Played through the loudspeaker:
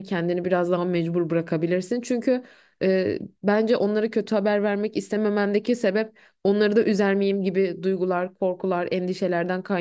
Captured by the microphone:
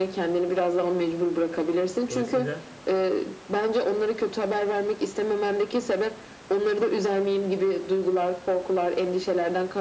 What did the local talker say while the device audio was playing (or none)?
Dolayısıyla